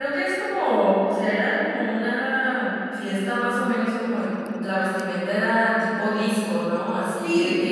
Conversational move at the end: listening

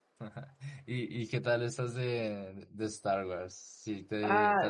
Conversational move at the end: taking over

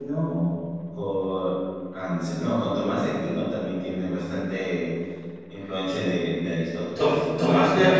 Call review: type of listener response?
taking over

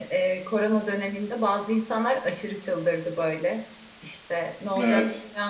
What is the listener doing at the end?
listening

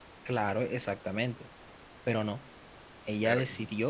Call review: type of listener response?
listening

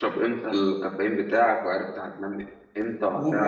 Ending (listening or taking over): taking over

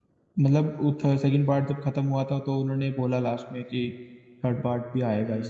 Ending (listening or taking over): taking over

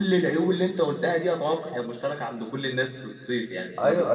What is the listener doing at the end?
taking over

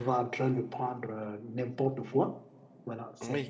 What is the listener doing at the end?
taking over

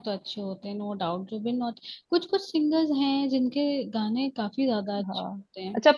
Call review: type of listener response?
taking over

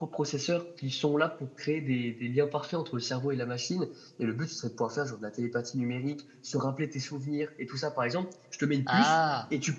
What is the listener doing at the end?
listening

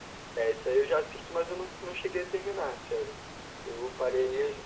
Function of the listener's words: taking over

